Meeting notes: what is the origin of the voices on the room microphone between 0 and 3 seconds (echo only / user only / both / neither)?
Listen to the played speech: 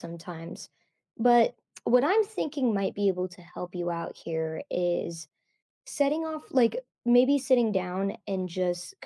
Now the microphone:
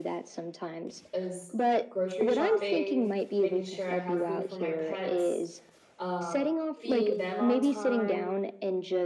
both